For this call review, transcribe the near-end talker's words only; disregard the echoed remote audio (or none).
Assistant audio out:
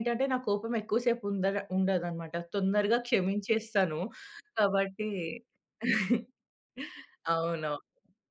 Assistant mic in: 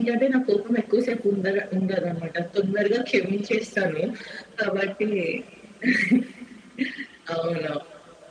none